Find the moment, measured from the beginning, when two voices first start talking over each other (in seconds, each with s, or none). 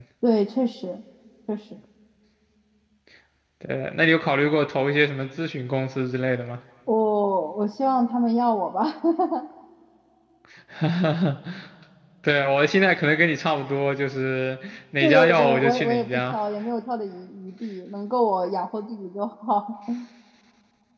15.0 s